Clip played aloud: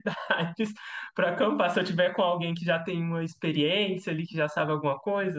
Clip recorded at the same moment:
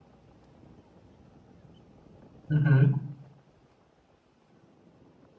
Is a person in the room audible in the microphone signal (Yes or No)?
Yes